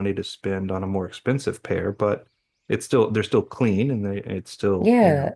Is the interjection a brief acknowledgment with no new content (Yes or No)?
No